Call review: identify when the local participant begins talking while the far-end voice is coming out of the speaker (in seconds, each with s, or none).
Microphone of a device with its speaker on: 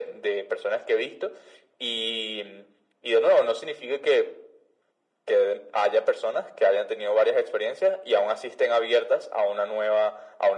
none